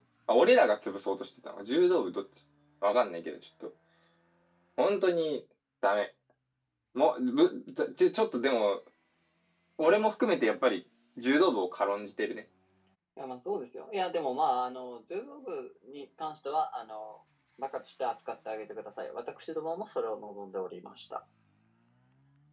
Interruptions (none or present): none